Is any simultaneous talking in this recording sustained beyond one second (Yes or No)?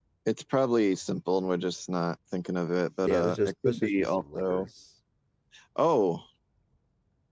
Yes